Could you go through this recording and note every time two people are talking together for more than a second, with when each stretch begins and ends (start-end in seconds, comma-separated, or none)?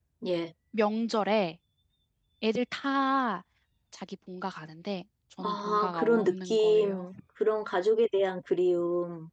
5.4-7.0